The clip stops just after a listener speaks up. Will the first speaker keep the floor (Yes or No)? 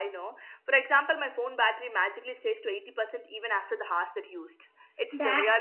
No